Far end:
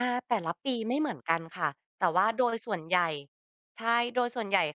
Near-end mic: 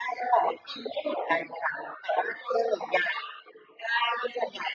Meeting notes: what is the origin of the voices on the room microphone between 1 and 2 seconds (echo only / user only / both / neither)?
echo only